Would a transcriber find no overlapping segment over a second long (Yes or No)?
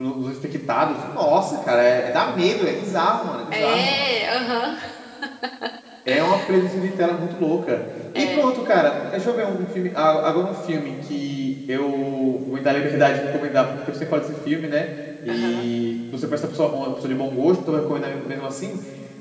Yes